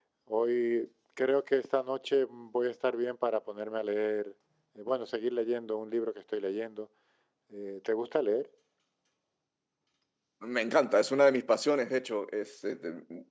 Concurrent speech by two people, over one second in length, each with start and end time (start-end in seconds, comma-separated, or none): none